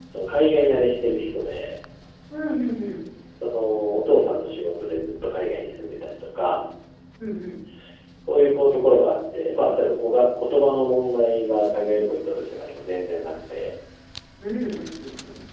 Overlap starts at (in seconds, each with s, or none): none